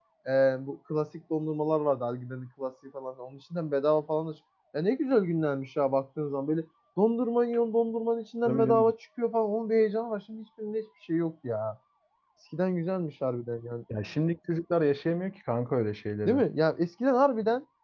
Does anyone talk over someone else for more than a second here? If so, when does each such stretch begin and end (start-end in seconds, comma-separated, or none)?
none